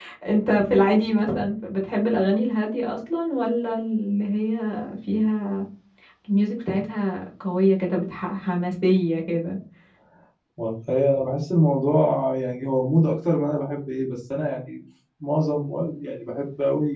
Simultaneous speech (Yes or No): No